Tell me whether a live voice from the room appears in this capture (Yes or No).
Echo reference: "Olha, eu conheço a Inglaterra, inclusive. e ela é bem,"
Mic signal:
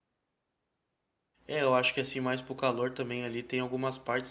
Yes